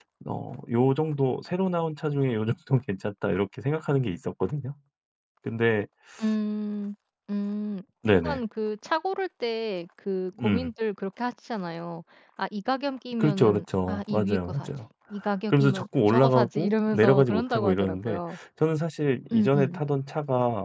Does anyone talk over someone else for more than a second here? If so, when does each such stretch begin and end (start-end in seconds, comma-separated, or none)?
13.2-14.7, 15.5-18.4